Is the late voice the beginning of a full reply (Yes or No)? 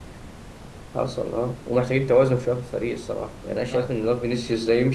No